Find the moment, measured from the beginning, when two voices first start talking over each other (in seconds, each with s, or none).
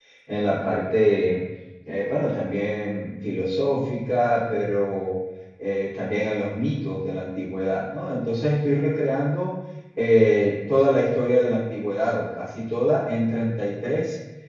none